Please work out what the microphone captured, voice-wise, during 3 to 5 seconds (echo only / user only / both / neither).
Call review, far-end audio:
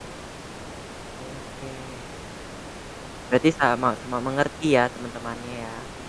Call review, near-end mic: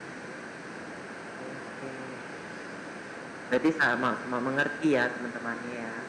echo only